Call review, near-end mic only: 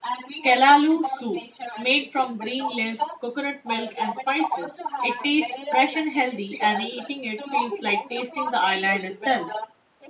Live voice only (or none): kelalu soup, made from green leaves, coconut milk and spices. It tastes fresh and healthy and eating it feels like tasting the island itself.